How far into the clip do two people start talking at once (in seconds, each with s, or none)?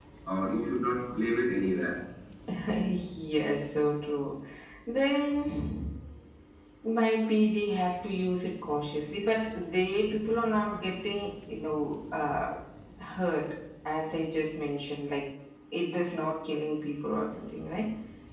none